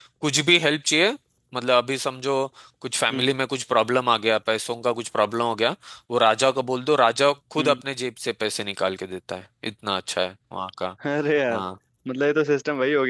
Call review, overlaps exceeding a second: none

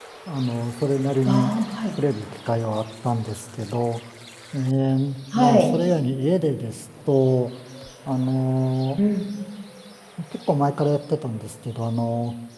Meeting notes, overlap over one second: none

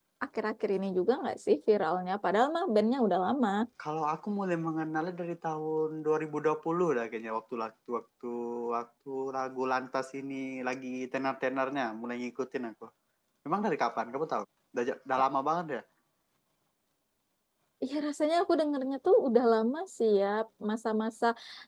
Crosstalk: none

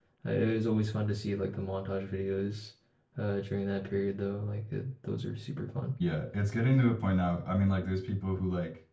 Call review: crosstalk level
none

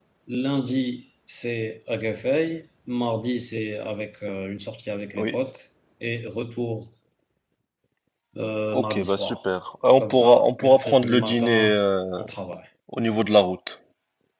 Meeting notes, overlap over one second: present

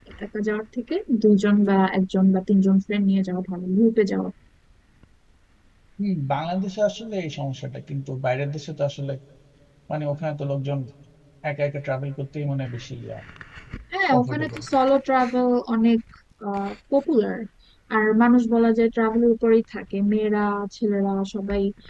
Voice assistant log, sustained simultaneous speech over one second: none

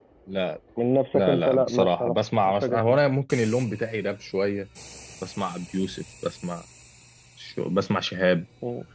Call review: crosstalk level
present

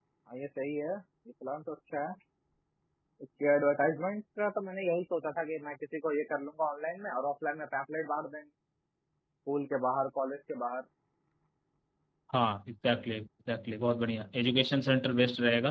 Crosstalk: none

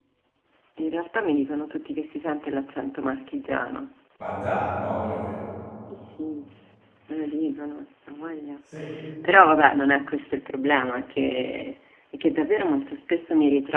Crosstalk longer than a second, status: none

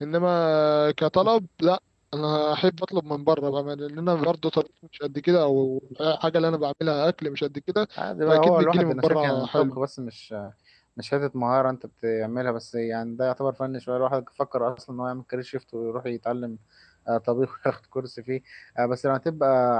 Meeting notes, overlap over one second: present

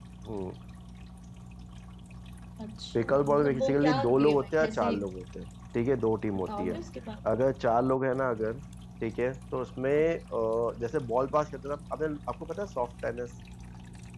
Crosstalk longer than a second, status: present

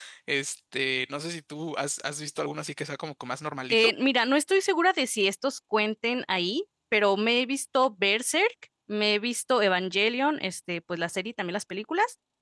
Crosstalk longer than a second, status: none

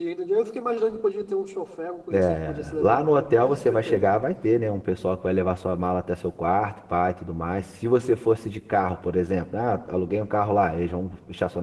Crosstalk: present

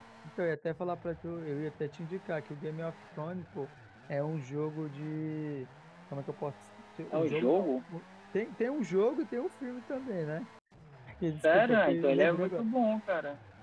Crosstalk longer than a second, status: present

